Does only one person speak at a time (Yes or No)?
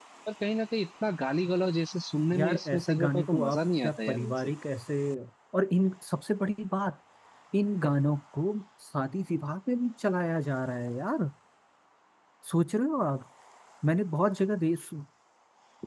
No